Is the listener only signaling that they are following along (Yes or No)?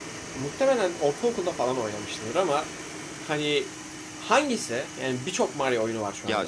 No